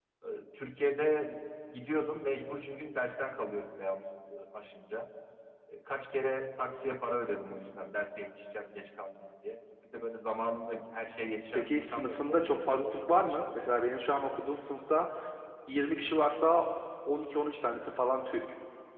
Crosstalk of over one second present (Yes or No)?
Yes